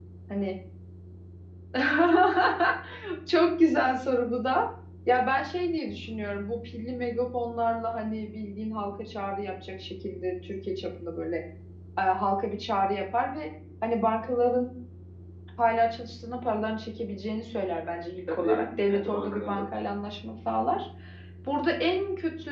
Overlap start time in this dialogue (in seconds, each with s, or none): 18.3 s